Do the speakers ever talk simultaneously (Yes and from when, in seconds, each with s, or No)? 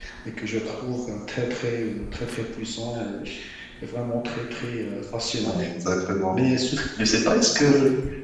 No